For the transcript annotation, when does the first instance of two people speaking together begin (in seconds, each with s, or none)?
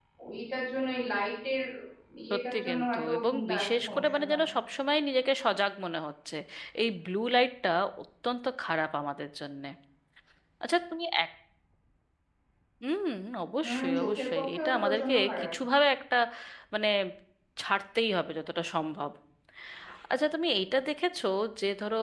2.3 s